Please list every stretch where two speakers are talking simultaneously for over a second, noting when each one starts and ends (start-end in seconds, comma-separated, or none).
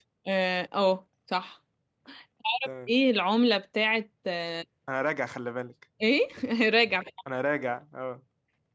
none